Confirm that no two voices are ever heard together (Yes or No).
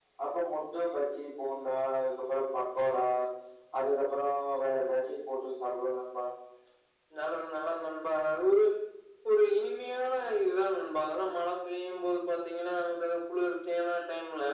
Yes